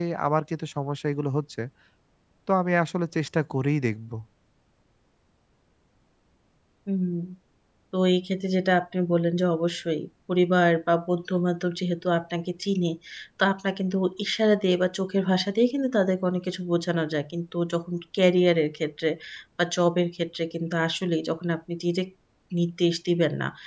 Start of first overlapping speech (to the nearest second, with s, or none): none